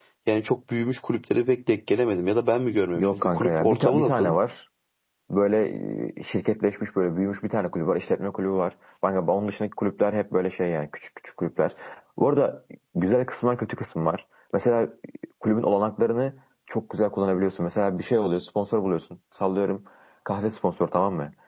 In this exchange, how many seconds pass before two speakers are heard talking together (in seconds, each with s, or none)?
3.0 s